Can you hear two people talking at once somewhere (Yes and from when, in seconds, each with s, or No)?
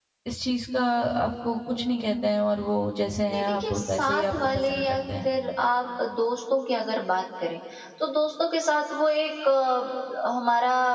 Yes, from 3.3 s